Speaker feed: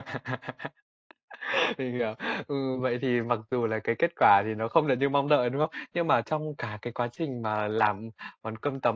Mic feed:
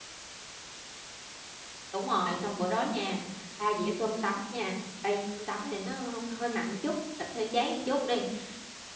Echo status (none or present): none